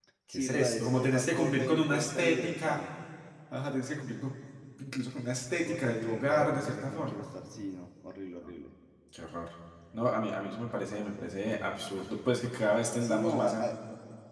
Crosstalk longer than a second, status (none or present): present